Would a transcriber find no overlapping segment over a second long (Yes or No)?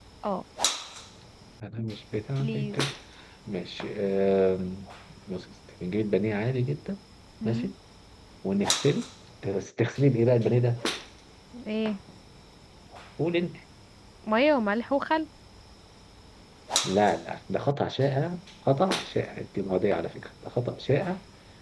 Yes